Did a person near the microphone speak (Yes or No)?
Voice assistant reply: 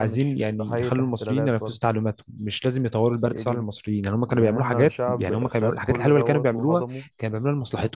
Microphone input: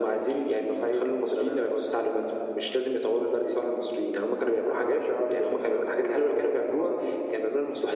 No